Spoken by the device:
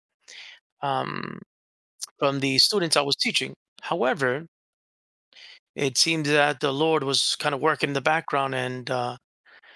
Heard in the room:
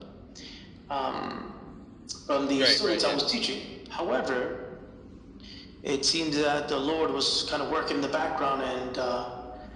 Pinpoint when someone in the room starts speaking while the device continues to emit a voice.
3 s

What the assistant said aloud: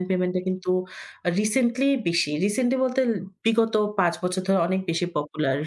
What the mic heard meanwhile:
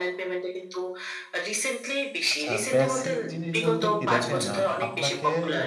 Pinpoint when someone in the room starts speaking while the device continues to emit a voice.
2 s

